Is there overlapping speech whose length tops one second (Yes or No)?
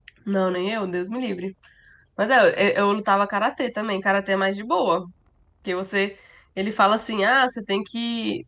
No